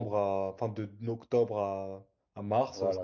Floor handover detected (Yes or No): Yes